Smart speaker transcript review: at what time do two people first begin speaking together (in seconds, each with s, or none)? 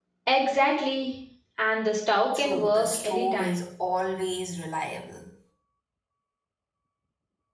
2.3 s